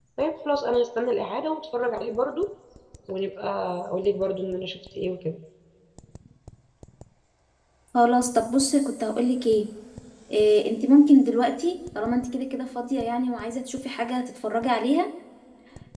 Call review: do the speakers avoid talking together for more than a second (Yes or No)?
Yes